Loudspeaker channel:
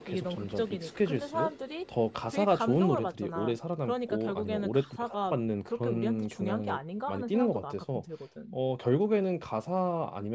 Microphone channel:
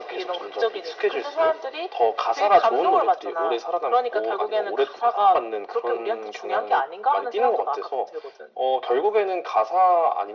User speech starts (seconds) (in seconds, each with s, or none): none